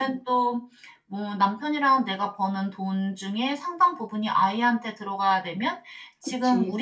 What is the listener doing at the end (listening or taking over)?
listening